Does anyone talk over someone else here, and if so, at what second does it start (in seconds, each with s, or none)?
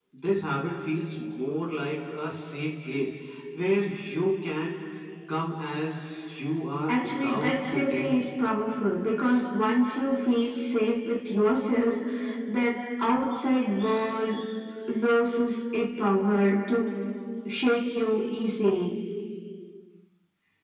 6.9 s